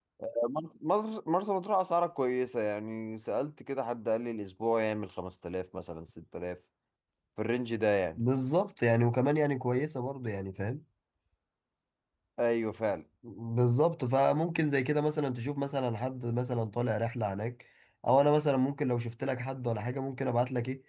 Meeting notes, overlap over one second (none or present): none